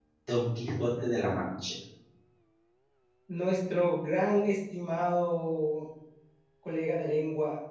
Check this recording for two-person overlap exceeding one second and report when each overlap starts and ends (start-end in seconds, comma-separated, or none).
none